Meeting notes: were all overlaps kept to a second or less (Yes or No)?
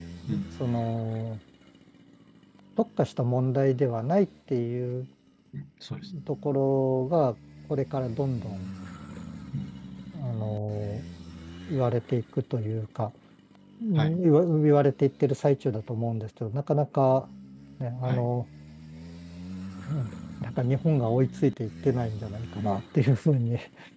Yes